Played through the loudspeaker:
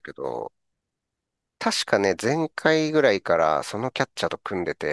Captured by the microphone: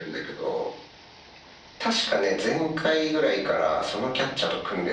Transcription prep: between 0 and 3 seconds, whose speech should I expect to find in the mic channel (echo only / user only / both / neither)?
echo only